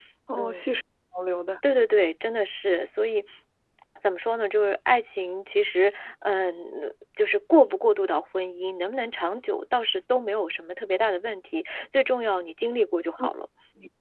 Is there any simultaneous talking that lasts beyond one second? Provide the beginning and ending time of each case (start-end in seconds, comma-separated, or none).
none